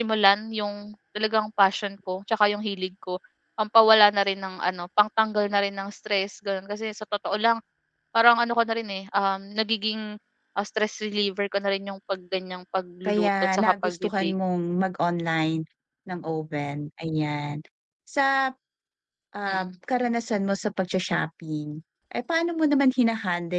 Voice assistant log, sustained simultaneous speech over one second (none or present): present